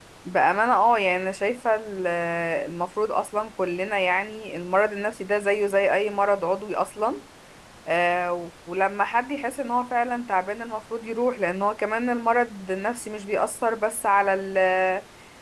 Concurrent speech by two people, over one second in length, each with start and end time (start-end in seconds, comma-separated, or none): none